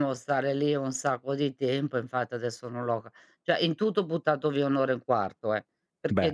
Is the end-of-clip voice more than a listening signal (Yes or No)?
No